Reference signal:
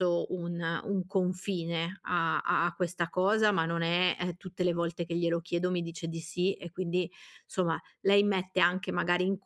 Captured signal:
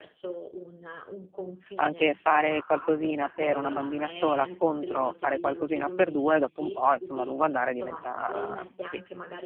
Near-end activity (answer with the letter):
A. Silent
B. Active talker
B